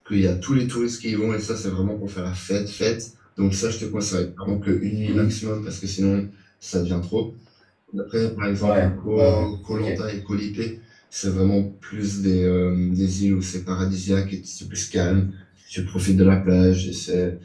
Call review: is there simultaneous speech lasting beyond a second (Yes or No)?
Yes